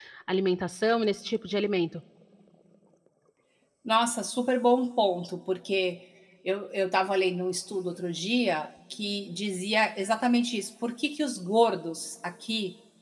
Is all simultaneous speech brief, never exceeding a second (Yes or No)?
Yes